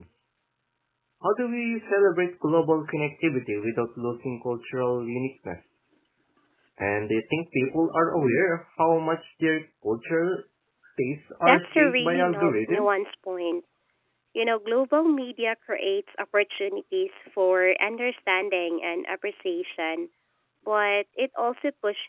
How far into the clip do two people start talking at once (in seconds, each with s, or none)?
11.5 s